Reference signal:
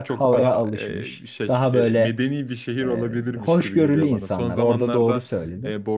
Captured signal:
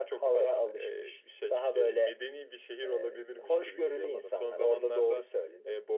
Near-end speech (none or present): none